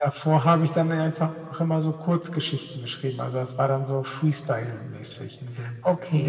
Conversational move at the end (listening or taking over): taking over